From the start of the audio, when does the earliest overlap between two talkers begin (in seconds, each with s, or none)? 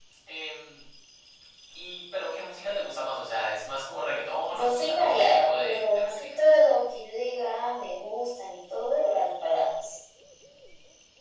4.5 s